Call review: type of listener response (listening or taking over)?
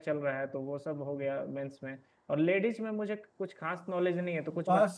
taking over